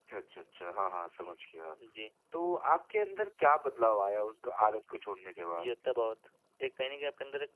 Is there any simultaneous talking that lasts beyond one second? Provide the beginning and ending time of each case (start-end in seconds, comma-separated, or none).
none